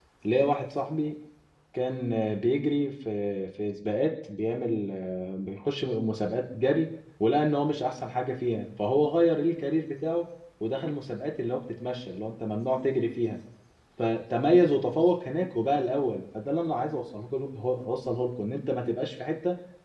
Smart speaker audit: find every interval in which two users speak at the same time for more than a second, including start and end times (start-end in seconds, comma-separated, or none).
none